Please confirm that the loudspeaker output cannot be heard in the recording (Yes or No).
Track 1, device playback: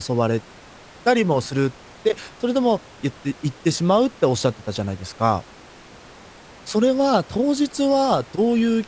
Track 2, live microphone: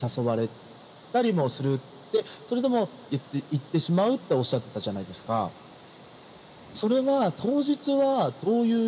No